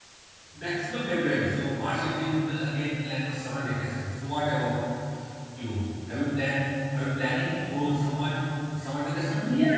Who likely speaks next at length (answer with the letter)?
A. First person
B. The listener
B